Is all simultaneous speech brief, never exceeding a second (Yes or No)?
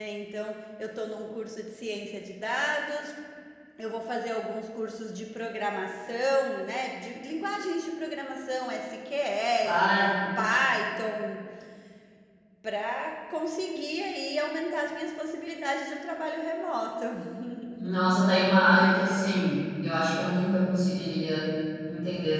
Yes